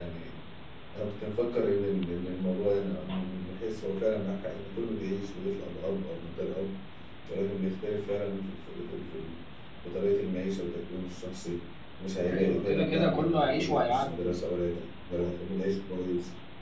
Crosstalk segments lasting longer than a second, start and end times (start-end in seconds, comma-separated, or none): 12.2-14.4